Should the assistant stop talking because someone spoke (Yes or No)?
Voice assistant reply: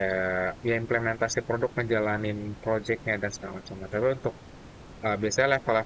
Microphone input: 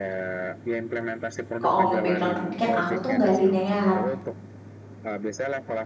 Yes